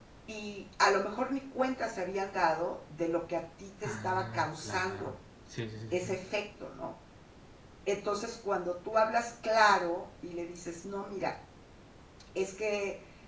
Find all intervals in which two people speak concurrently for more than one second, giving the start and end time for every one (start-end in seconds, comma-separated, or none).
3.8-5.1